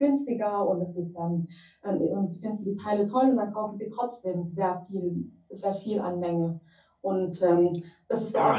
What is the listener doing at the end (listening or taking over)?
taking over